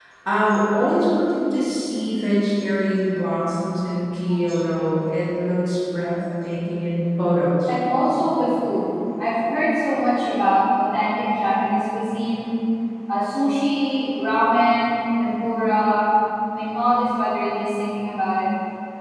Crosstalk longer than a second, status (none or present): none